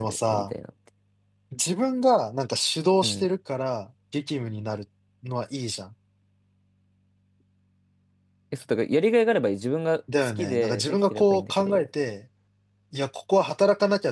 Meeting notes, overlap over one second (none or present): present